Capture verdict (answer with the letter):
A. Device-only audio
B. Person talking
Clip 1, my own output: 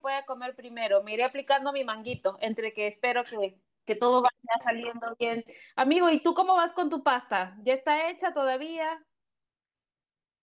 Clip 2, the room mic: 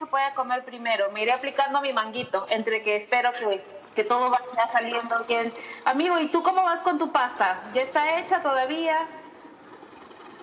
A